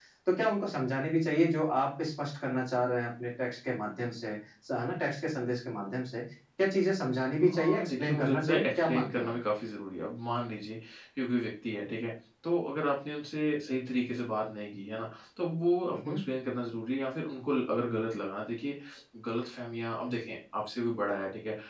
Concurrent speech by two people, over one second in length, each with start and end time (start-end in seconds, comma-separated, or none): 7.4-9.3